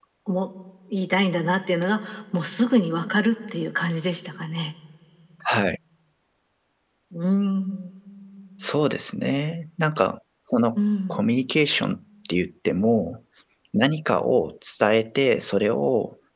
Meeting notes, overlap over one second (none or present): none